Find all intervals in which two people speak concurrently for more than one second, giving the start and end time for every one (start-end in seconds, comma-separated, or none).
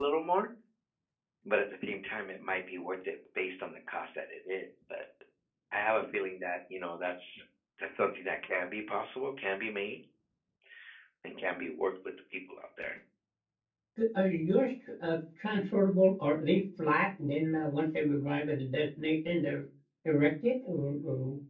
none